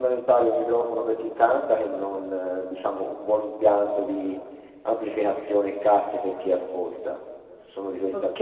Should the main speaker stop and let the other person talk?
Yes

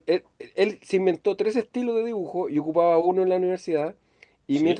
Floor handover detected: No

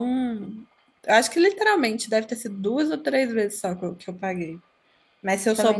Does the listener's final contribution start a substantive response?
Yes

